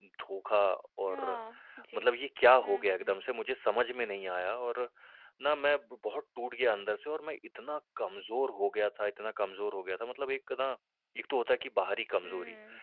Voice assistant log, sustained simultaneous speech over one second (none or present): none